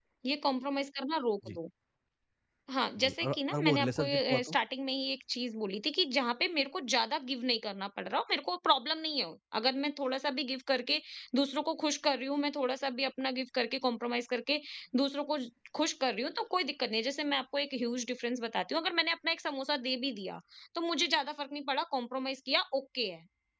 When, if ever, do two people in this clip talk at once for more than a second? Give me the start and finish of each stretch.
3.0-4.6

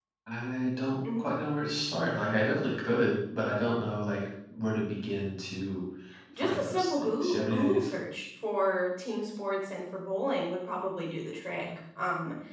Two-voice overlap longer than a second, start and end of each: 6.4-8.1

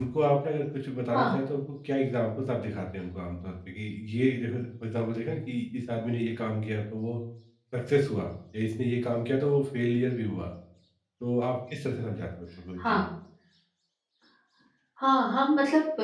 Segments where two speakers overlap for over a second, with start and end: none

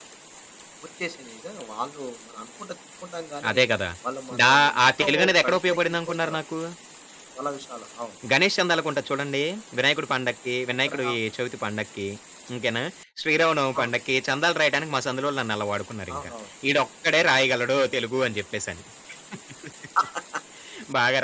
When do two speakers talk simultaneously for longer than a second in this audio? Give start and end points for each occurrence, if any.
4.4-6.4

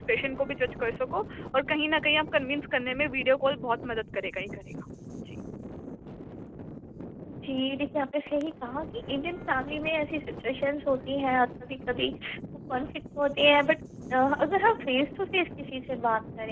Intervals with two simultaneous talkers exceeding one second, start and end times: none

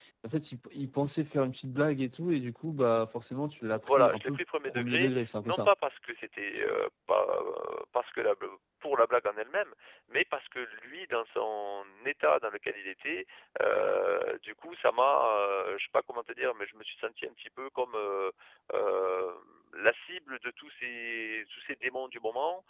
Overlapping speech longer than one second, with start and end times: 3.8-5.7

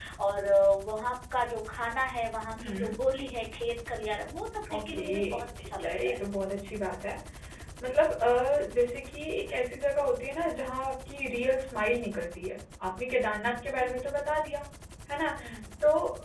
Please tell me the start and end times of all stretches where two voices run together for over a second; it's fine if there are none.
4.7-6.2

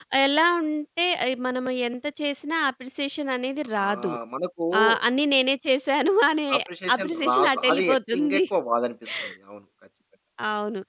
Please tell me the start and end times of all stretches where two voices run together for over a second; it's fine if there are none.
7.0-8.4

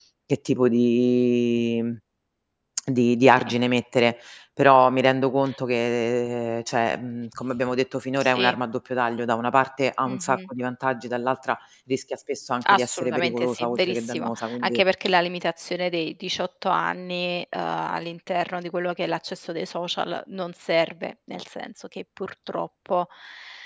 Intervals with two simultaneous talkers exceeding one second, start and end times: 12.7-14.8

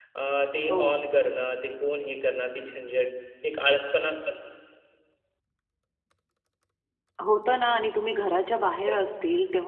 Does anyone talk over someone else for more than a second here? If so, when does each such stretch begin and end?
none

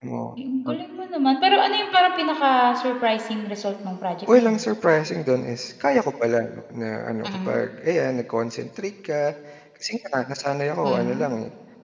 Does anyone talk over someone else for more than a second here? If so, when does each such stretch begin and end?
none

